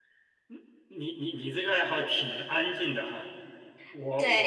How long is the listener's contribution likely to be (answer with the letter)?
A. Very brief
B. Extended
B